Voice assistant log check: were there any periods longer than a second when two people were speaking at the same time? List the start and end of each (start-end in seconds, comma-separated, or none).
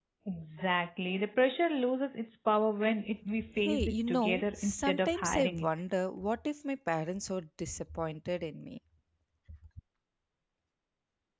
3.6-5.7